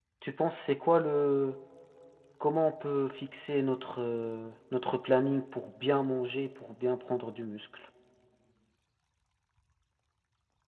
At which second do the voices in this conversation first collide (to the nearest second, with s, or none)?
none